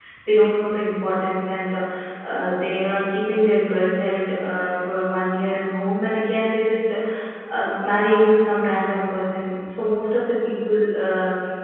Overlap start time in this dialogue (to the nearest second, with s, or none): none